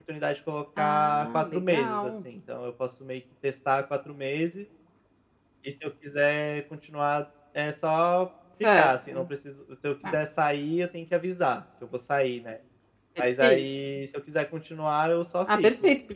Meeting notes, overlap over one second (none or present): present